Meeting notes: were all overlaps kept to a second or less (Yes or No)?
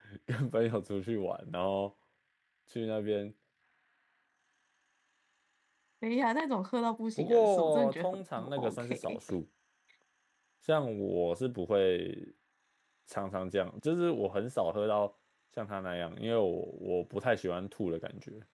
No